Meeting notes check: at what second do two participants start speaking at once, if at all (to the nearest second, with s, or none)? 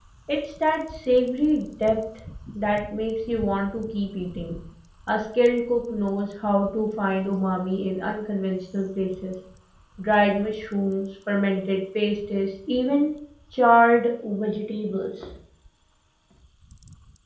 none